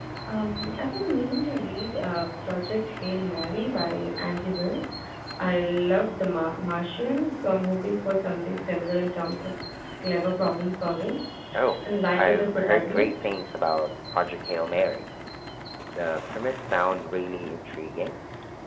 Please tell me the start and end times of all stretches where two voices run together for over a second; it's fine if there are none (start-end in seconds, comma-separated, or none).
11.8-13.3